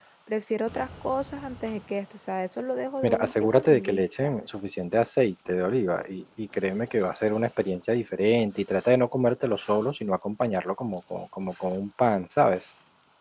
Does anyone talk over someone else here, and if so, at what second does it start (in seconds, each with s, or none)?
3.0 s